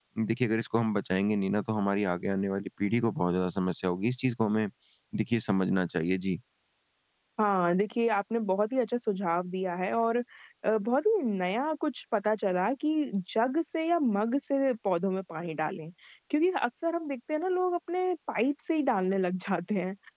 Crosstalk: none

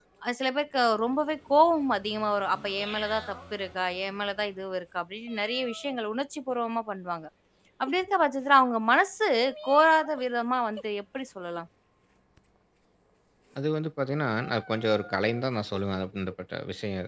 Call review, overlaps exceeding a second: none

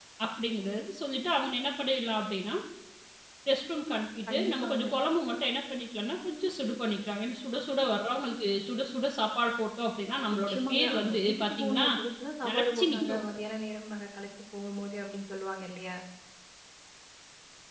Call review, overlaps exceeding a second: present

